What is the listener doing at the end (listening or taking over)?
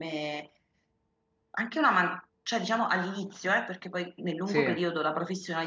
listening